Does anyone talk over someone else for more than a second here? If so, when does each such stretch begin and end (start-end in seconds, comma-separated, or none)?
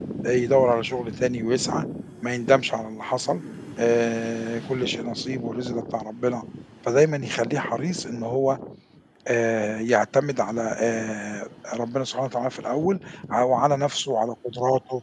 none